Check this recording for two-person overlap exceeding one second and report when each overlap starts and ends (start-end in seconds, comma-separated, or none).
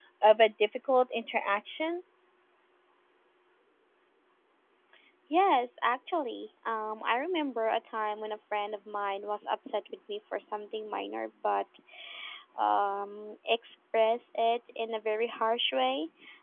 none